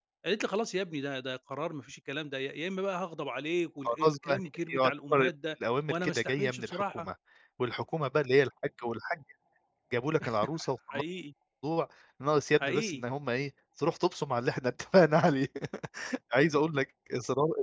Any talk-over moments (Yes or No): Yes